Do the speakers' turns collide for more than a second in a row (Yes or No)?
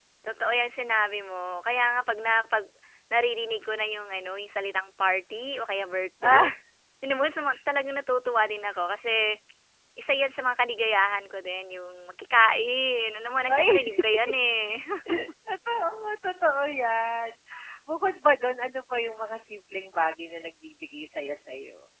No